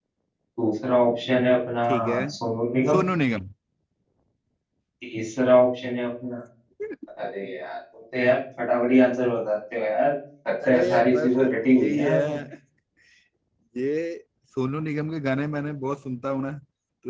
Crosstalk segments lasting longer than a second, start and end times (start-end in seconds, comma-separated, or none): 10.7-12.4